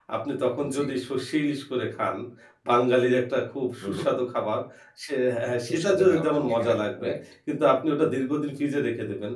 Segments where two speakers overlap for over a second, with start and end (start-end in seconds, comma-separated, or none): 5.7-7.1